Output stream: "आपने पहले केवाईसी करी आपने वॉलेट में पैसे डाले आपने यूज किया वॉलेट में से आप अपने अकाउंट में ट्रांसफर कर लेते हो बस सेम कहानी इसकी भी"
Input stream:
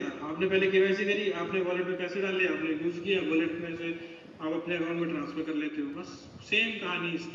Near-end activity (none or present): none